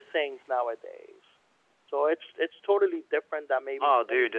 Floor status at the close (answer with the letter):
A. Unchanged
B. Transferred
B